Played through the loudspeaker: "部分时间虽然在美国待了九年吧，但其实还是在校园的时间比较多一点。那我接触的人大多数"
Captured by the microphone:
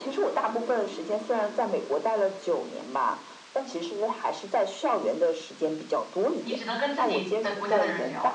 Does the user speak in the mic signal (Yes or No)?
Yes